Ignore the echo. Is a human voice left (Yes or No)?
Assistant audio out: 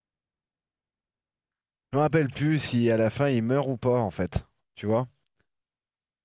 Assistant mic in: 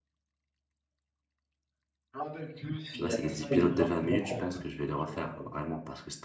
Yes